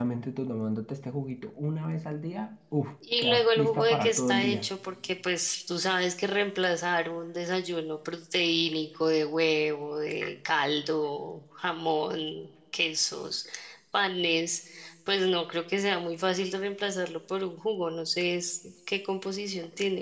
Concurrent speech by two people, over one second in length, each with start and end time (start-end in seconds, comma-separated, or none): 3.2-4.7